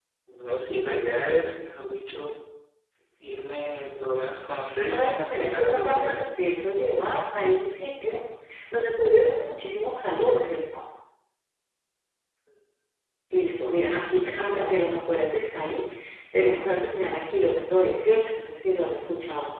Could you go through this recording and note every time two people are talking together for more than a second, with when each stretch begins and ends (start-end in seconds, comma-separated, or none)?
4.8-6.2